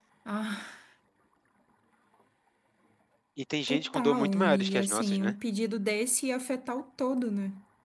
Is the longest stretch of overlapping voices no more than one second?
No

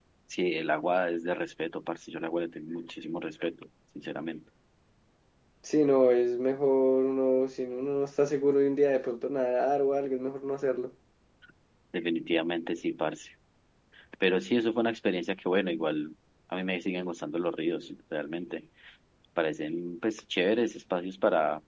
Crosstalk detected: No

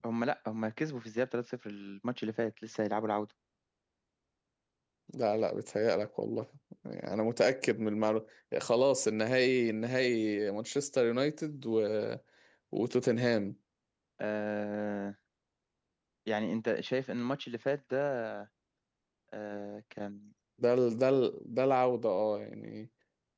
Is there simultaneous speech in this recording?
No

